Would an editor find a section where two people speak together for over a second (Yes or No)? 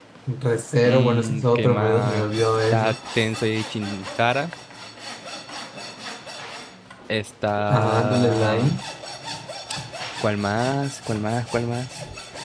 Yes